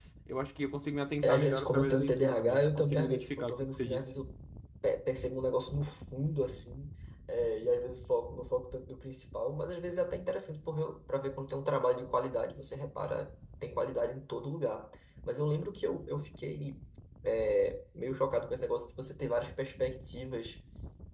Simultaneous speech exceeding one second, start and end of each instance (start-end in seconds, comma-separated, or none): 1.2-4.1